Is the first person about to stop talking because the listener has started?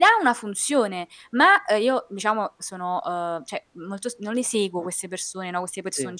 No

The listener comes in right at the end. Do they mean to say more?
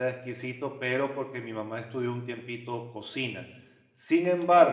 No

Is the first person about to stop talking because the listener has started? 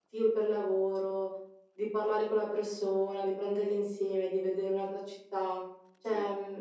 No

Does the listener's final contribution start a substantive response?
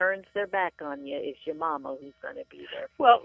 Yes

